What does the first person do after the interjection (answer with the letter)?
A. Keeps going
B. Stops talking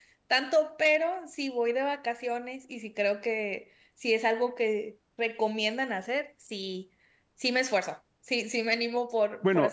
B